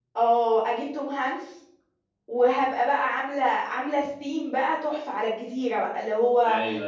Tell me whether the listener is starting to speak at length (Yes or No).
No